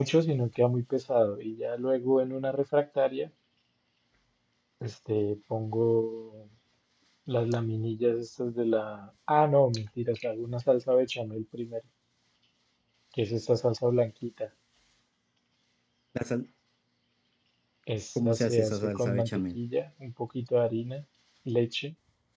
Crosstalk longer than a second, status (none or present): present